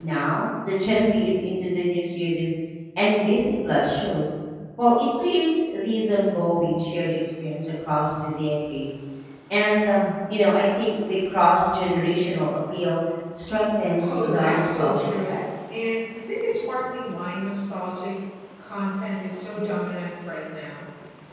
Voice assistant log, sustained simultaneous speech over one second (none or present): present